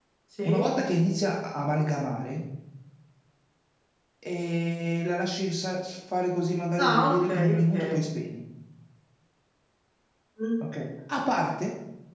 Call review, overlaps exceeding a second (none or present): present